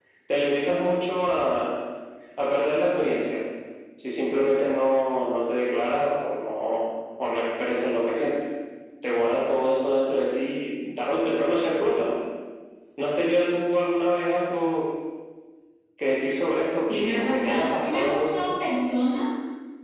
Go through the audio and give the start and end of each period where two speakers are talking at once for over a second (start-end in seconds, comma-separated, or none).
16.9-18.5